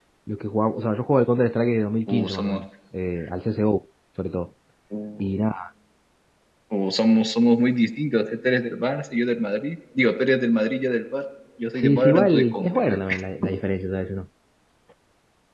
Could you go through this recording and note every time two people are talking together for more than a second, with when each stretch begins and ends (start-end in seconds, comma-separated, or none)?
11.8-13.0